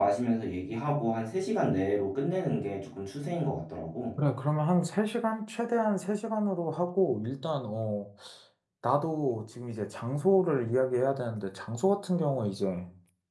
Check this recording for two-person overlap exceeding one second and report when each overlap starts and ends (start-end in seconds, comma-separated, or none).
none